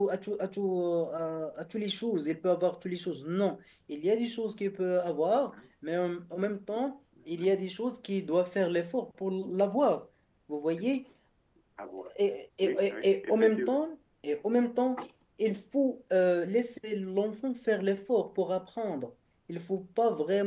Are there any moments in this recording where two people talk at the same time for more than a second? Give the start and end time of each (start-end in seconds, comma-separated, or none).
12.6-13.8